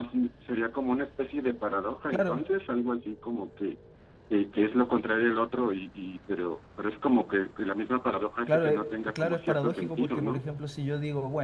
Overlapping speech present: Yes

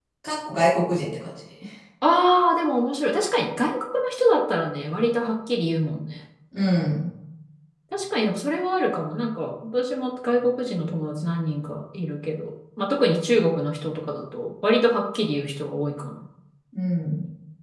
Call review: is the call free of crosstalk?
Yes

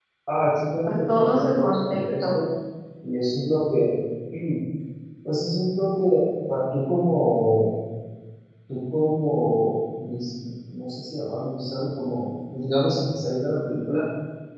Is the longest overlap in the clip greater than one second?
Yes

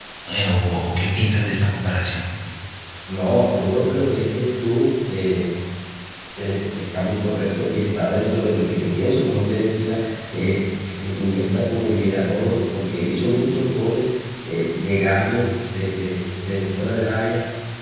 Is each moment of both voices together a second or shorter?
Yes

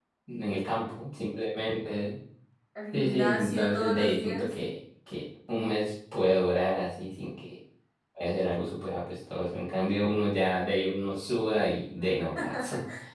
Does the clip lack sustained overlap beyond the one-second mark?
No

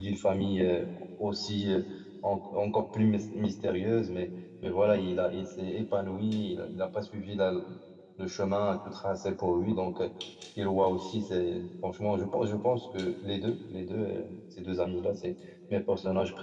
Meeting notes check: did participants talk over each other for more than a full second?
No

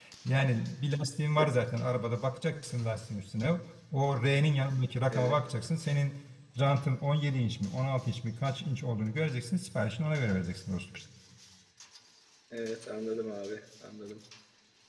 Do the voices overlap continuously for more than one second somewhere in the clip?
No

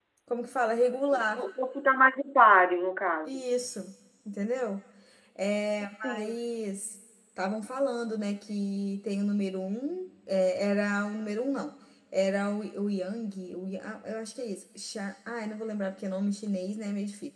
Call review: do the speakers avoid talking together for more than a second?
Yes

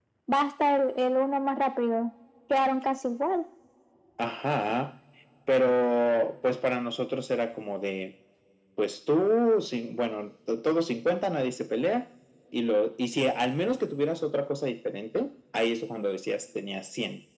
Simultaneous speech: No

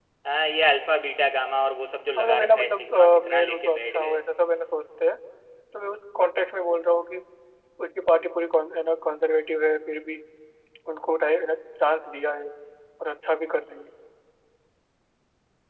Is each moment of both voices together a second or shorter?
No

